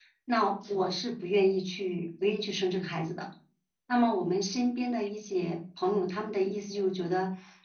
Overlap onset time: none

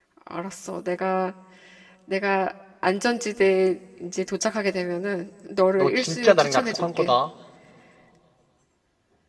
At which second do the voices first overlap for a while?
5.8 s

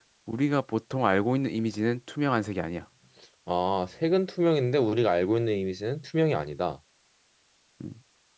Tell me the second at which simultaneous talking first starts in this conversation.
none

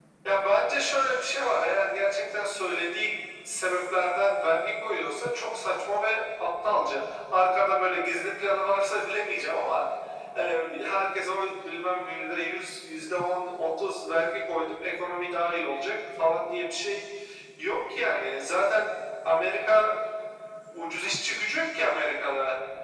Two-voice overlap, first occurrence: none

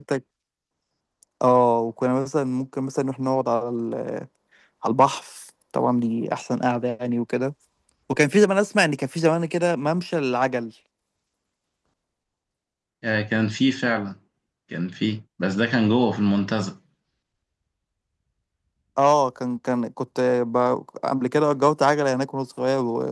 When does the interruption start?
none

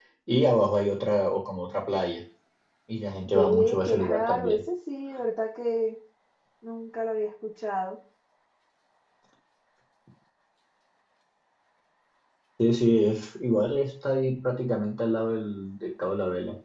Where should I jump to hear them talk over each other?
3.3 s

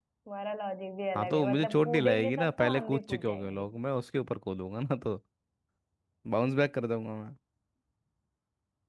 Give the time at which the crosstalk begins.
1.1 s

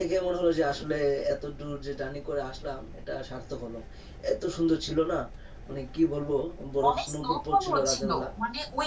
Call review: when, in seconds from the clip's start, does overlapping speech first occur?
6.9 s

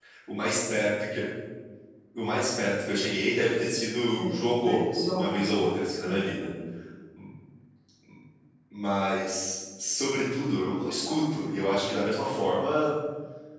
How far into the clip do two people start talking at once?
4.1 s

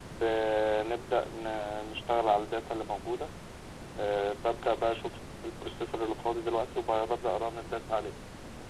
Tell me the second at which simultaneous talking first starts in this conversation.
none

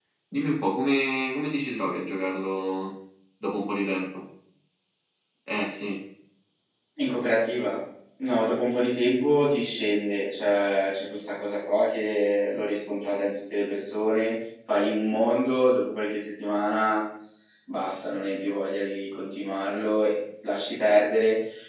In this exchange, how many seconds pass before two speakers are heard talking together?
none

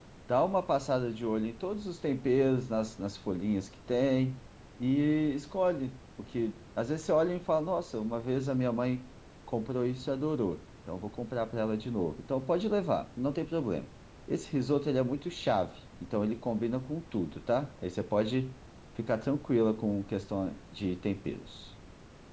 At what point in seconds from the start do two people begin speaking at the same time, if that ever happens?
none

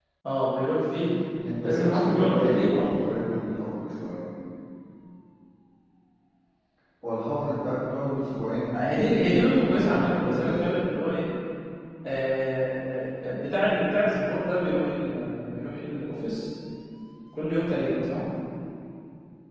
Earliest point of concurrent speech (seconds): 1.6 s

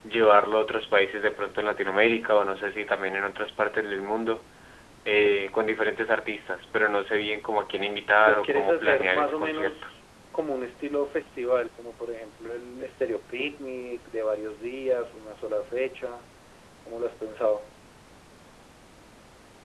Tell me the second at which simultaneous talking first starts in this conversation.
8.2 s

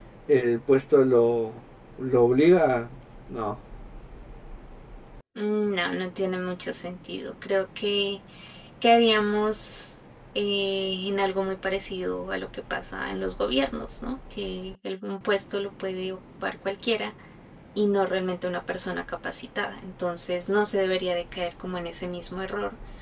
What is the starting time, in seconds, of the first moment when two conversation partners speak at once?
none

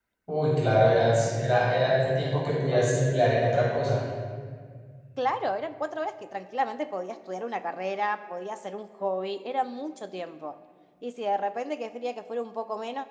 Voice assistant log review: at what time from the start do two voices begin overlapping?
1.2 s

